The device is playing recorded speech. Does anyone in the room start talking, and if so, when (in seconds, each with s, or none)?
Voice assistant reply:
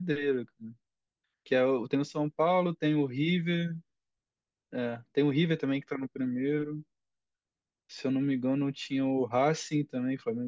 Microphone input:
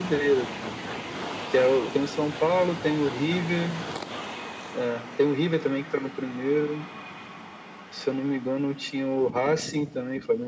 none